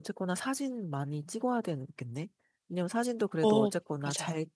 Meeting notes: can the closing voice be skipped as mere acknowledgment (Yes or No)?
Yes